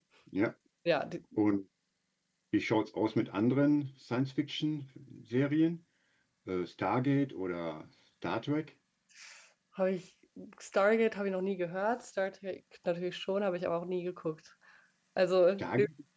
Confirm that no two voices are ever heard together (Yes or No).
Yes